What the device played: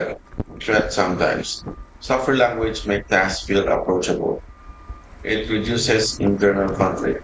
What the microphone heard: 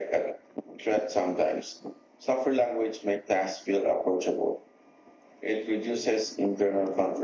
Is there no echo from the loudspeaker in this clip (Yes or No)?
No